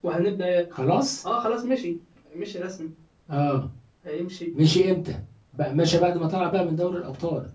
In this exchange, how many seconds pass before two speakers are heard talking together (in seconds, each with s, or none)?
none